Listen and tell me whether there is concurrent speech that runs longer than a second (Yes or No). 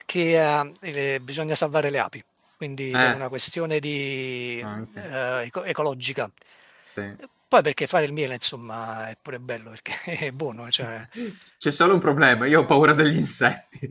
No